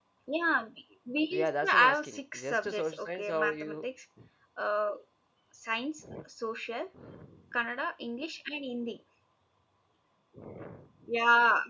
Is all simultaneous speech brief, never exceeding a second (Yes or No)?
No